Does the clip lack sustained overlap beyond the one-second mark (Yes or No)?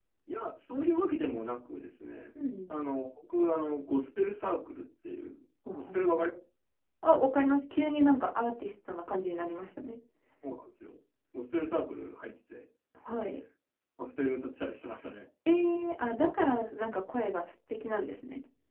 Yes